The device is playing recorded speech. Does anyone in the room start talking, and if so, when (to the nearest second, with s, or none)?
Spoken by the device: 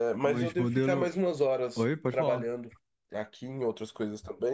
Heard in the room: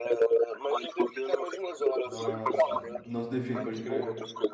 2 s